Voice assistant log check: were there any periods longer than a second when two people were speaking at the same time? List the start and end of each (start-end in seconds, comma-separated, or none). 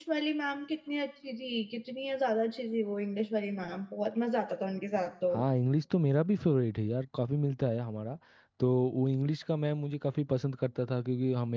none